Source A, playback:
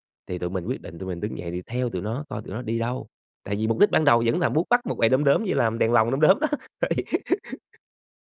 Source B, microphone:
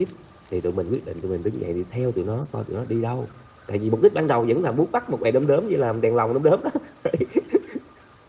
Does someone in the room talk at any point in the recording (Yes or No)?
No